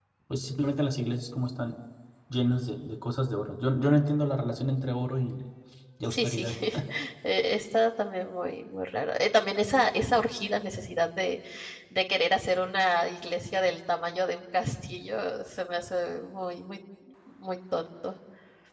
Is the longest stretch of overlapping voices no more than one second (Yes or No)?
Yes